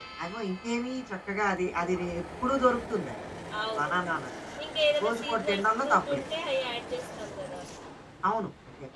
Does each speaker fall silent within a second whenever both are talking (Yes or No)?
No